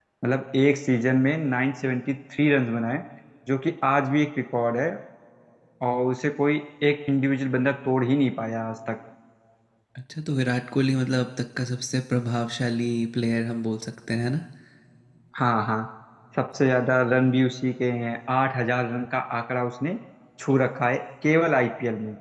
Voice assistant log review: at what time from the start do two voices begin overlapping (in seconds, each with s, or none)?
none